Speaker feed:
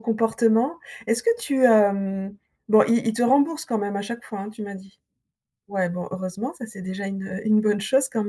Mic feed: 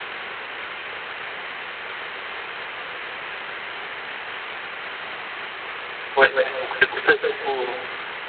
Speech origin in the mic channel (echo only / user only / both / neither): user only